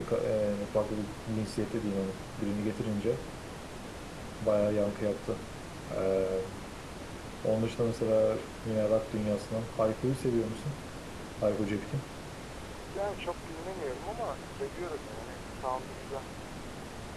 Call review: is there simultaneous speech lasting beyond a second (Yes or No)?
No